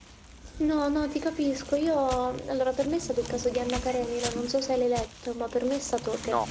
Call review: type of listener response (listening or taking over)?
listening